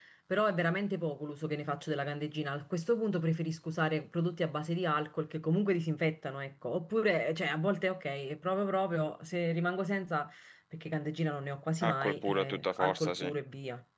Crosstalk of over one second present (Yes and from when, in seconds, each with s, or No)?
Yes, from 11.8 s